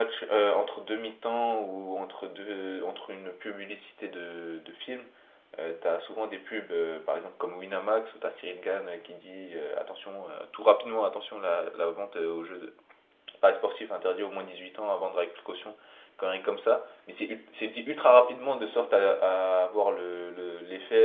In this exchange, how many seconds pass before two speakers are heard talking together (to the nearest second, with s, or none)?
none